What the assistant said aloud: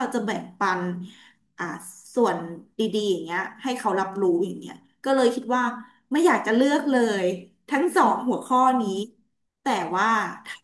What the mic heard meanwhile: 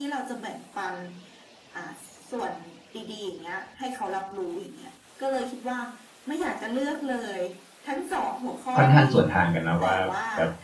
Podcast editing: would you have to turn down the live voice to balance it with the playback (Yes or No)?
Yes